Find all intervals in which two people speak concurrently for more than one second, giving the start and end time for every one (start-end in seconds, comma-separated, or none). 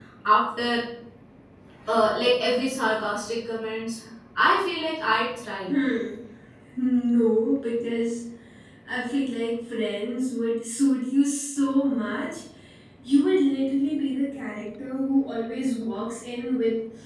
none